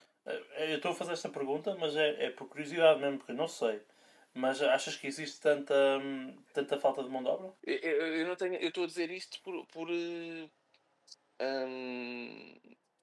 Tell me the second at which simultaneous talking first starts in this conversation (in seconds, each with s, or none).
none